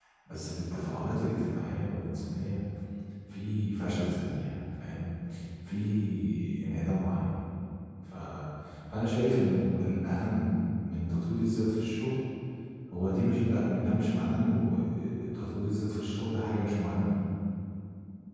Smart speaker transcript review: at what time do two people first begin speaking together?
none

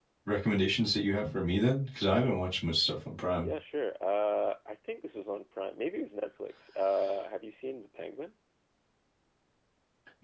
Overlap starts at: none

